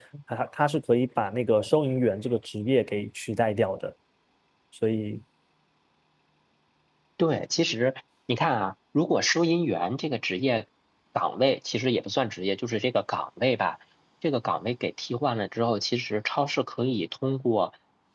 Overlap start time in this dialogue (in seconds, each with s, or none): none